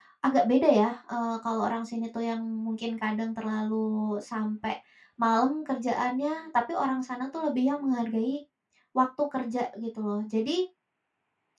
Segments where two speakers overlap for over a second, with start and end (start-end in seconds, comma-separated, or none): none